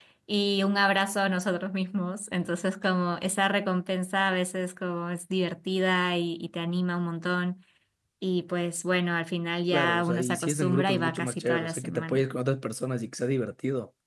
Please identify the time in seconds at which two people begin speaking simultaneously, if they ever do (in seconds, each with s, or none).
9.7 s